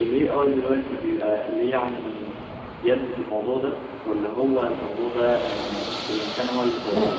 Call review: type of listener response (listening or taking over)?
taking over